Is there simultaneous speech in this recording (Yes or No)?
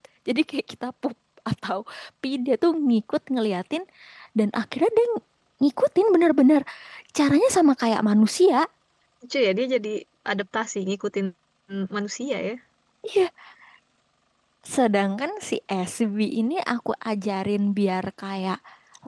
No